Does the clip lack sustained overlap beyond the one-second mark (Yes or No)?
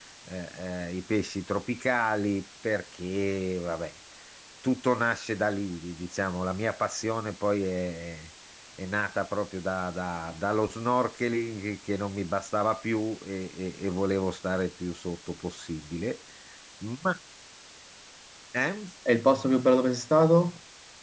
Yes